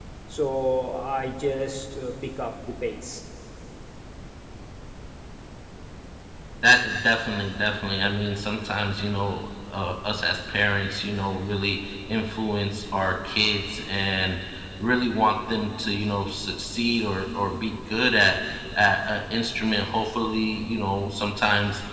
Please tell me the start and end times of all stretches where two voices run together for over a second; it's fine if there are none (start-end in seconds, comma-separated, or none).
none